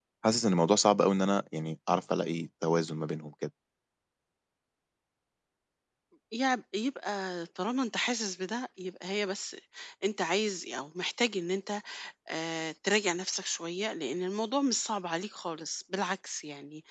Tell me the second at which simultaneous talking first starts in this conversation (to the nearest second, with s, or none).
none